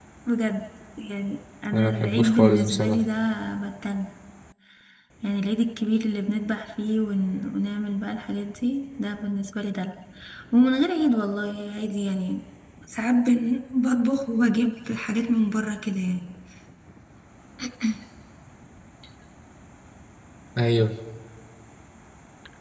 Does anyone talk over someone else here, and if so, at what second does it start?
1.7 s

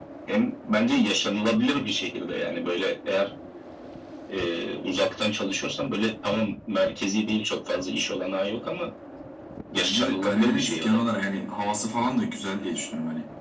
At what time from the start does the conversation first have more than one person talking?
9.7 s

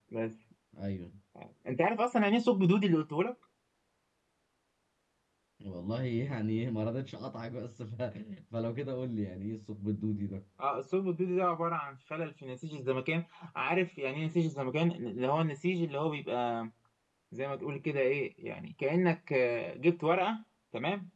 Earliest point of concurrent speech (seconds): none

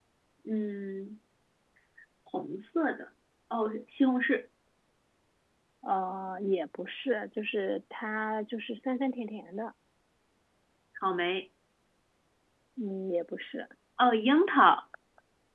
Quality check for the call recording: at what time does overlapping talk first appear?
none

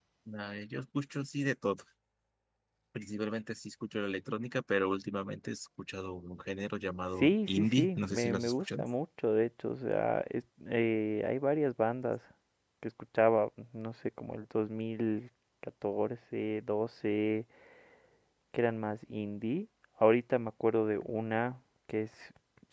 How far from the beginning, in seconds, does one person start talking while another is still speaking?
7.2 s

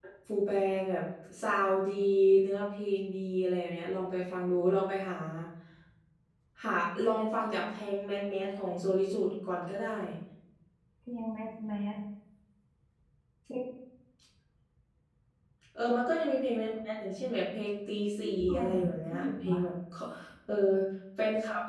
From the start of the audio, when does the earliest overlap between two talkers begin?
18.2 s

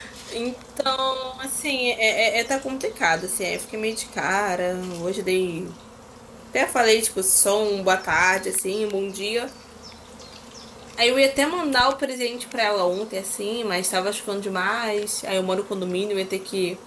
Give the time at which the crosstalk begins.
none

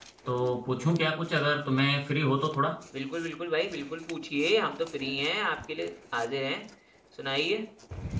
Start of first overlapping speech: none

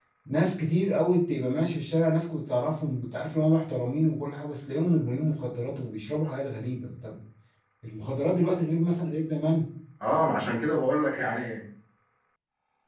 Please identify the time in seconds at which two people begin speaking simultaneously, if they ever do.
none

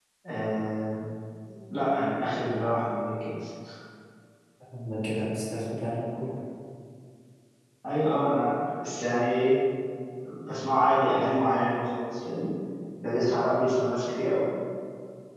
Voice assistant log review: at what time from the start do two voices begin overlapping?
none

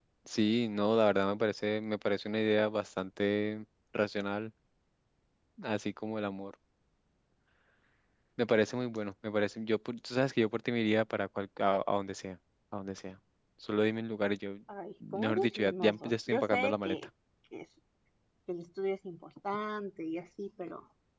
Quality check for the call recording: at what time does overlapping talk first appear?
15.1 s

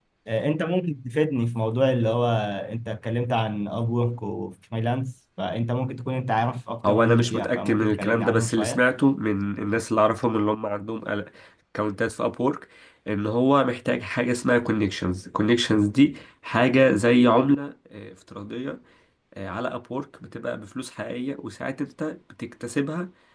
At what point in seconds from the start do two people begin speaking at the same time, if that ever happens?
6.8 s

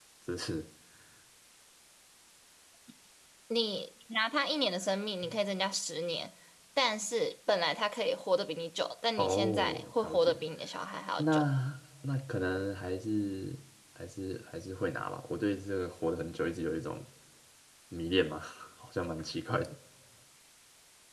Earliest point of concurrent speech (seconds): 9.2 s

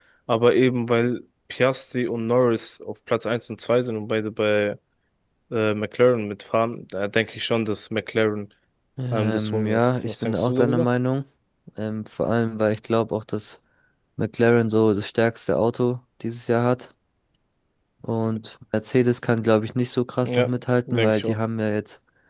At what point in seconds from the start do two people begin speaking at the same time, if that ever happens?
9.1 s

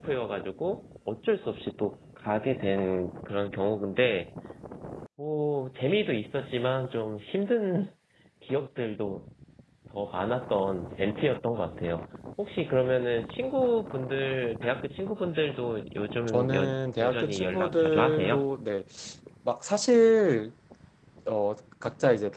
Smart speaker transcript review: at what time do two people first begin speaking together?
16.3 s

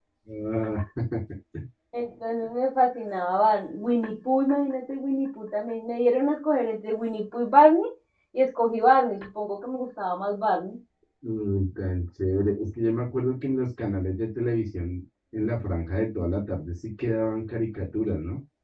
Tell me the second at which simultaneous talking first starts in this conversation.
none

